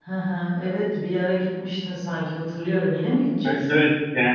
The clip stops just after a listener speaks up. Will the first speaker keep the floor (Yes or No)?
No